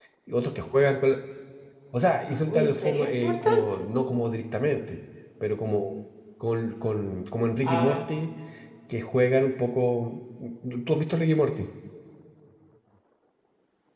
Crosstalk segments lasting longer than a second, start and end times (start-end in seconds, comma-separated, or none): 2.5-3.7